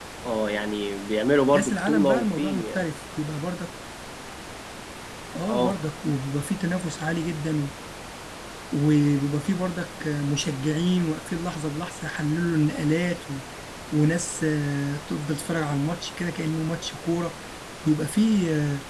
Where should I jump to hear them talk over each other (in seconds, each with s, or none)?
1.5 s